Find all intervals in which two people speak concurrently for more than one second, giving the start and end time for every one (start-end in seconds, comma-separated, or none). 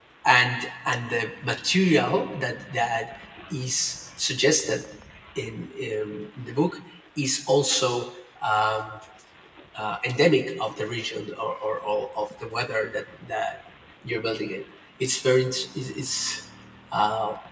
none